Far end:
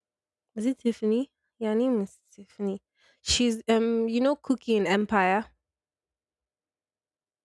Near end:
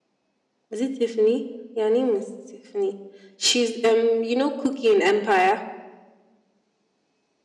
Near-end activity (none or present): none